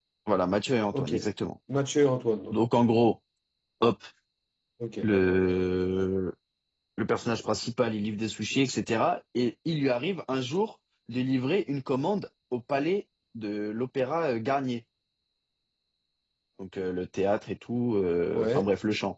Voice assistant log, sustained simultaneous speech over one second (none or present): none